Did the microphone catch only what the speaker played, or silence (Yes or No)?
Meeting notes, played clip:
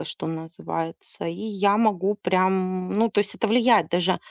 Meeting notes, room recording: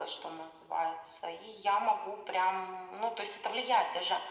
Yes